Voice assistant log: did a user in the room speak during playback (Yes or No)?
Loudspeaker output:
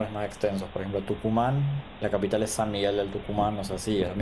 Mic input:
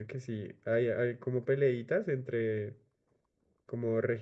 Yes